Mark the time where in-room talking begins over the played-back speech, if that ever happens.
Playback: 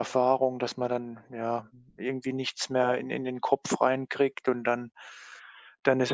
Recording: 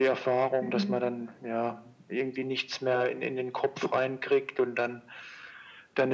0.6 s

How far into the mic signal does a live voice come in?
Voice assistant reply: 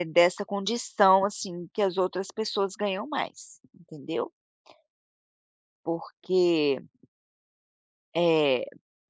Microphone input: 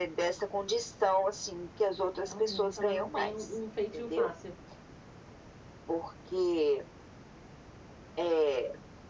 2.1 s

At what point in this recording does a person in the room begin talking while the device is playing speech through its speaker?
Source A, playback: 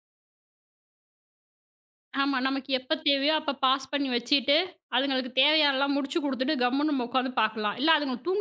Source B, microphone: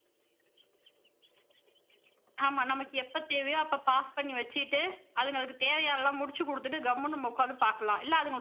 none

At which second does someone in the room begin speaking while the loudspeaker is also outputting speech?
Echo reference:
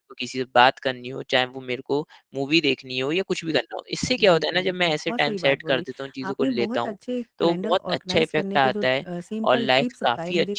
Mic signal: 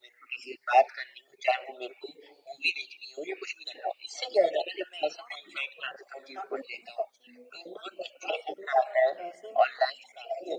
none

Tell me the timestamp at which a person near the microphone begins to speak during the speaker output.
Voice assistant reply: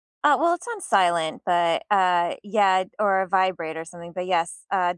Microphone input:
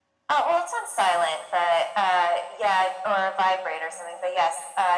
none

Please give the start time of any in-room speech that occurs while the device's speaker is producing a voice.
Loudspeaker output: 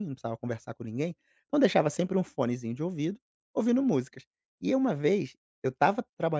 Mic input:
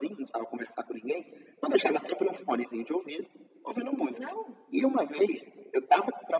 4.1 s

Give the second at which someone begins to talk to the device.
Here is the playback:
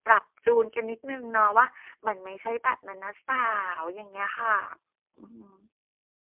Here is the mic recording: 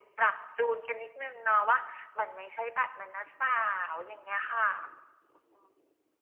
none

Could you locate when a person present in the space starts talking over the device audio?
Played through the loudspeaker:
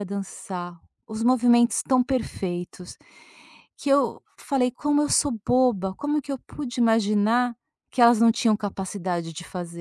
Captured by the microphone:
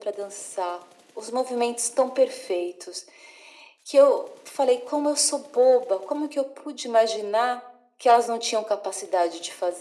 none

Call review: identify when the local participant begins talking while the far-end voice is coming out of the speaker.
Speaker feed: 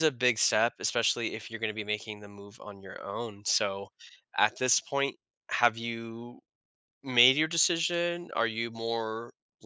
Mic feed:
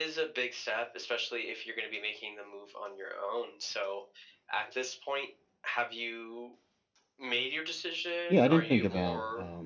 8.3 s

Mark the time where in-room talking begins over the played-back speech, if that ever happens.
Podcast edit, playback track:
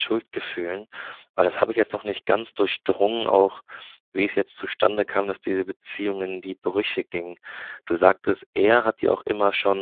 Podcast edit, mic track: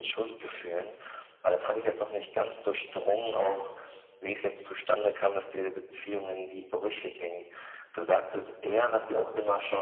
none

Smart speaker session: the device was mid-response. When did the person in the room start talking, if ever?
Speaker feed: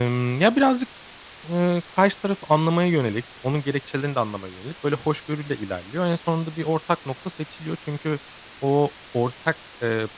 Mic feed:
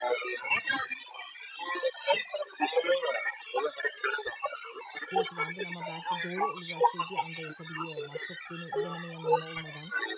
5.1 s

